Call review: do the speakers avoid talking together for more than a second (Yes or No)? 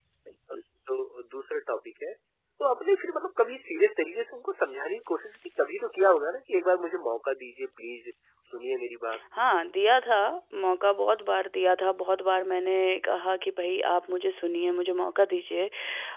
Yes